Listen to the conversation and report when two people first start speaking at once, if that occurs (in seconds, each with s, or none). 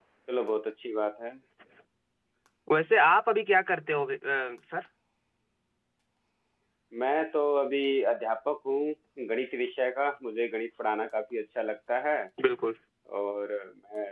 none